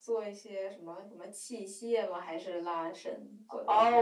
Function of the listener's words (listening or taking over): taking over